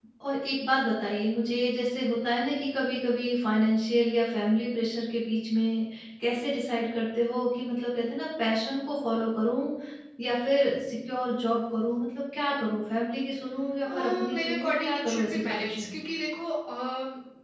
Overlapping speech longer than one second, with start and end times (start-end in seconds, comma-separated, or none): 13.8-16.0